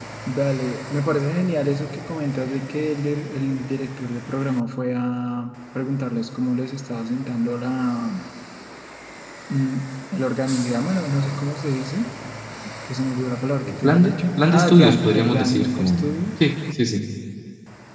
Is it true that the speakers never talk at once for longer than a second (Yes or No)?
No